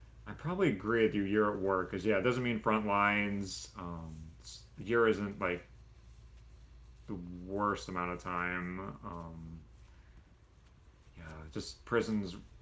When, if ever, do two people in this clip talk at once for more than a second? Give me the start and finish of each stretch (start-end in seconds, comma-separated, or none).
none